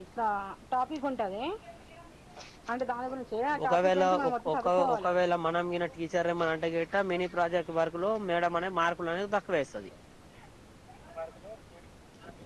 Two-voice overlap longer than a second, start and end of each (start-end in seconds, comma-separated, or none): 3.6-5.1